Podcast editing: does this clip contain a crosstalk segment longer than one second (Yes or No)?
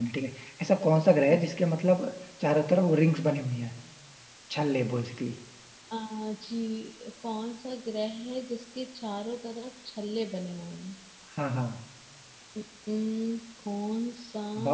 No